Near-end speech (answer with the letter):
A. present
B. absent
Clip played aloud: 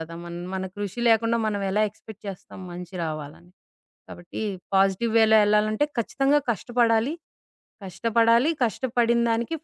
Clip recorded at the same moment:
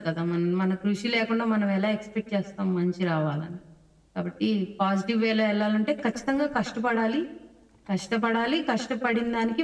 B